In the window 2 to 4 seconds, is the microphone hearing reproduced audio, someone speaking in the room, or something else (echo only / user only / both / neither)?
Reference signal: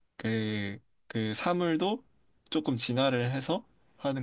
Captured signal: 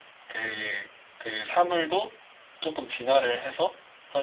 echo only